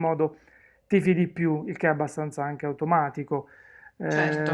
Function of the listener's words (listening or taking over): listening